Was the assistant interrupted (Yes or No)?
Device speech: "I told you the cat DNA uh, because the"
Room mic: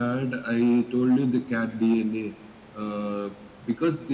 No